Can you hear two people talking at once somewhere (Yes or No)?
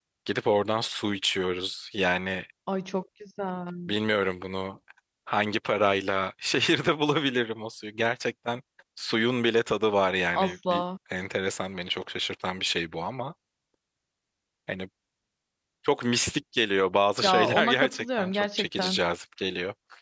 Yes